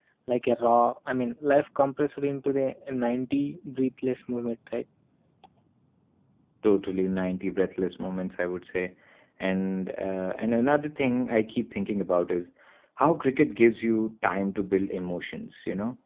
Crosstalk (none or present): none